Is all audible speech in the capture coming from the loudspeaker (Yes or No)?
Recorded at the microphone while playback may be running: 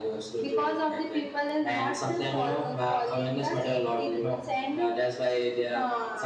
Yes